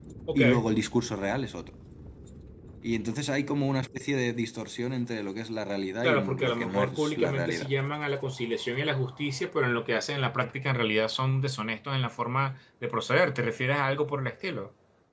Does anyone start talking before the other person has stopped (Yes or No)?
Yes